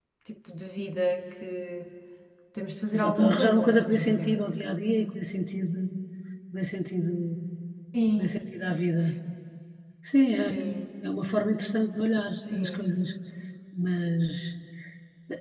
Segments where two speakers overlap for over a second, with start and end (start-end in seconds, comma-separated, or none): 2.9-4.4